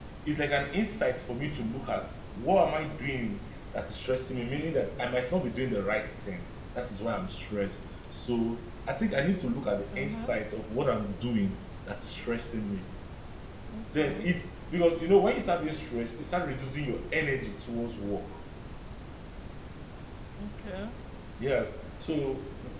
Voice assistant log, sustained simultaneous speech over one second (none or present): none